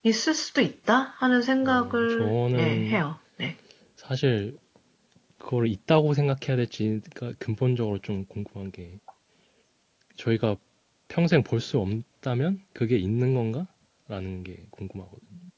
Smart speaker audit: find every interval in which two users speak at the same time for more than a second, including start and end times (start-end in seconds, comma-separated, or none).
1.6-3.0